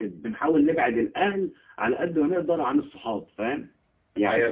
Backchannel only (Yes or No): No